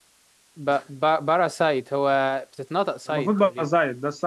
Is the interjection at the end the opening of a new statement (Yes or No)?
Yes